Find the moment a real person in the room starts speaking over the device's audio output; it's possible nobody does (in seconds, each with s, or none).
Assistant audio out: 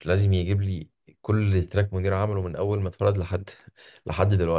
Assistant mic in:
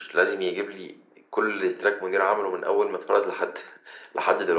none